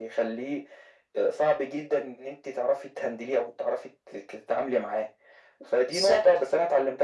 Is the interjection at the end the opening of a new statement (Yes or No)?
No